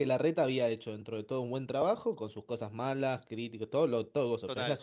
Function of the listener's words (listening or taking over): listening